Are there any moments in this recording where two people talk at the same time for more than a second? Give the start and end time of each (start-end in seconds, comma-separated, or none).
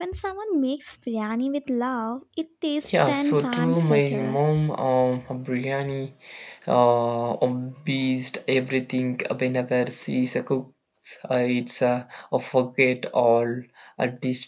2.9-4.4